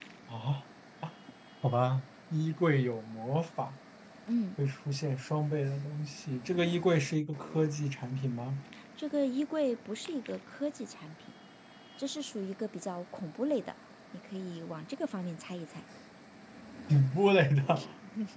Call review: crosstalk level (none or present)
none